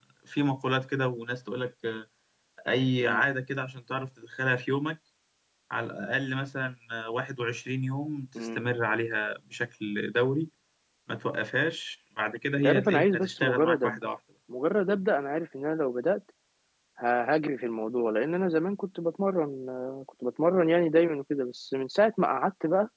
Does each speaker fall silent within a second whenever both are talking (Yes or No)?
No